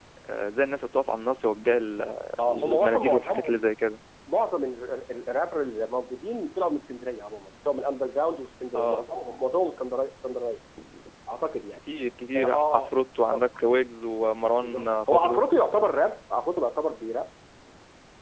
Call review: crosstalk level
present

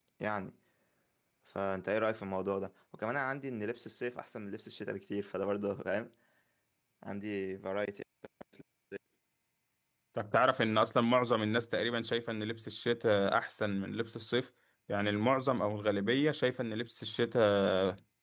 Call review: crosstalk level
none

